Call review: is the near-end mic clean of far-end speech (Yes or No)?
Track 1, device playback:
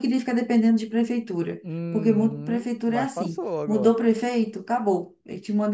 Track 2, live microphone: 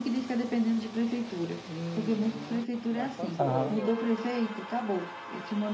No